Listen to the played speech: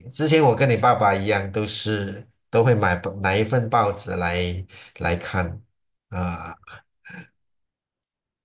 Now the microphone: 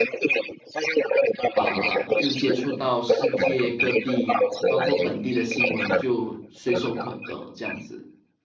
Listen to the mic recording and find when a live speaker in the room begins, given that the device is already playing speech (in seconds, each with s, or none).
1.6 s